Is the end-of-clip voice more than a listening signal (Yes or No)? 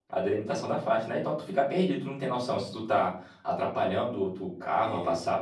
No